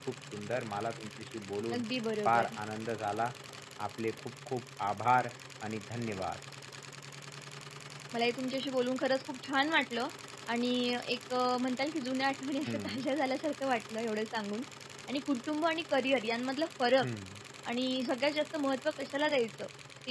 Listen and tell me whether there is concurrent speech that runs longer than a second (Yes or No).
No